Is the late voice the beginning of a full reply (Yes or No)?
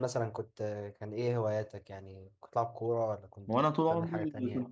Yes